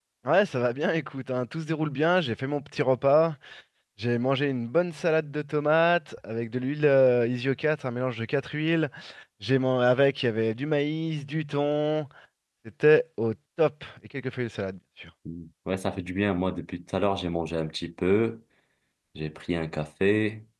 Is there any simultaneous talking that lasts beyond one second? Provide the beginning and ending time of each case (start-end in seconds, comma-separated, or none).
none